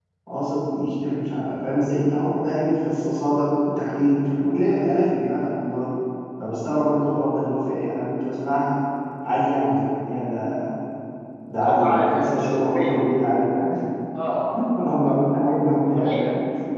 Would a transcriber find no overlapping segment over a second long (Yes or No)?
No